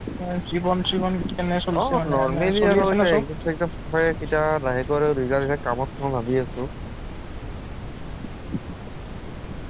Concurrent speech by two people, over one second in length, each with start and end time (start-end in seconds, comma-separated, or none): 1.8-3.2